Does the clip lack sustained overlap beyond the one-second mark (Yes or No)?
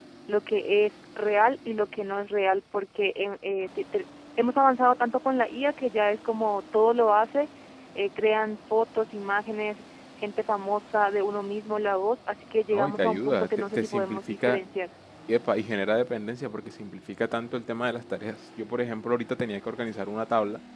No